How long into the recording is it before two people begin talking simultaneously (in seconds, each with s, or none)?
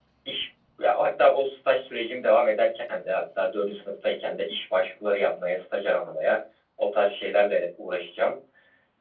none